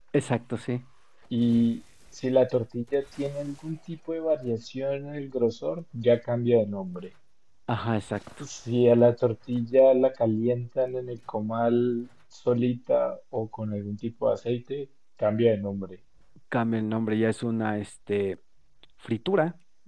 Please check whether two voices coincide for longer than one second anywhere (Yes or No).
No